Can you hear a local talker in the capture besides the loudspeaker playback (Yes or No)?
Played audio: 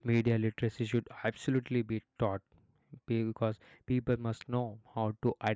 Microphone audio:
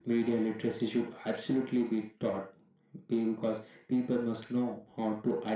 No